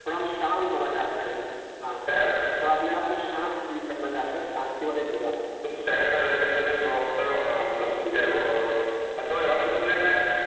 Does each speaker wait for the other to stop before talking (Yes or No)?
Yes